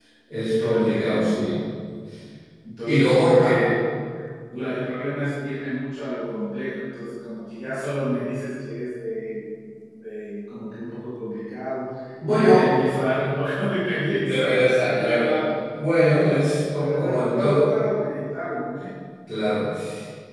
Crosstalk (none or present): present